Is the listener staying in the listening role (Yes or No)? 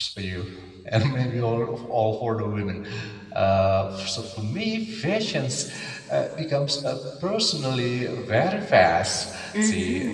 No